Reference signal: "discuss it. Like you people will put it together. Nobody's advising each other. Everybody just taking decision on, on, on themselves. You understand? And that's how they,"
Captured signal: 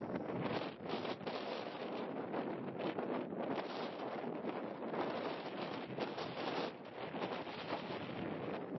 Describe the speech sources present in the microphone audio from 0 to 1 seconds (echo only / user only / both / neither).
neither